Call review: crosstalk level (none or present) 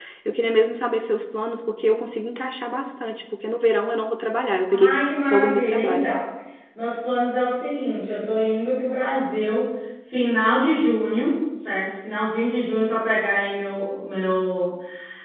present